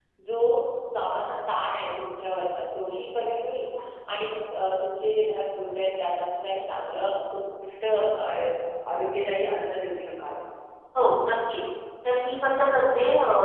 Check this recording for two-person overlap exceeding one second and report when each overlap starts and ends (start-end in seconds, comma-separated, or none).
none